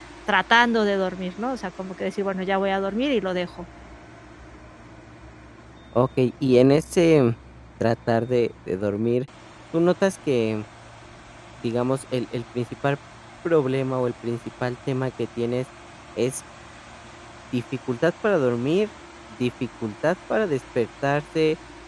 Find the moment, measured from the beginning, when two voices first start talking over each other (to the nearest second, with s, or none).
none